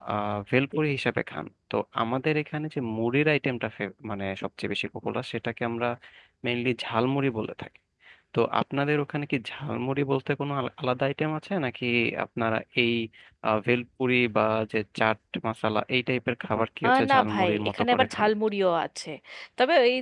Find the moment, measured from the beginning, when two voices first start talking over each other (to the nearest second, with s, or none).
17 s